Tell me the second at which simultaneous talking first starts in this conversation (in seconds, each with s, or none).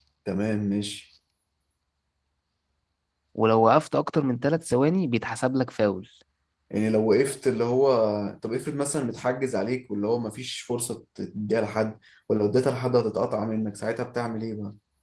none